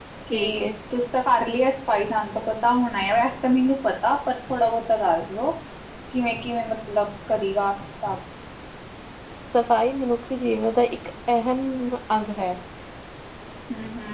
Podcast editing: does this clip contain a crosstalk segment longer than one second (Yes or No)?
No